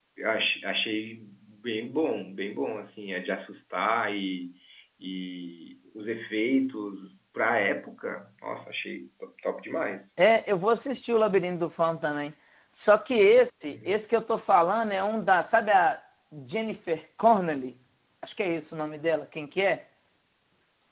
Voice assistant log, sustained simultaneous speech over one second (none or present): none